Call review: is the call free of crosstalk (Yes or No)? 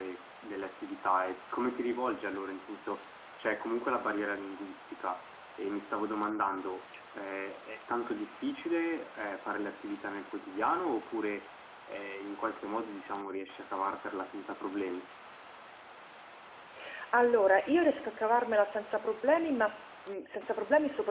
Yes